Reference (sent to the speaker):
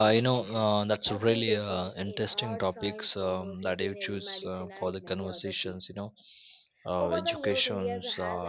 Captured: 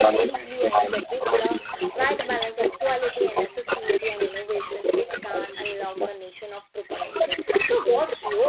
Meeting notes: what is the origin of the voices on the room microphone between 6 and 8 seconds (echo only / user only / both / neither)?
both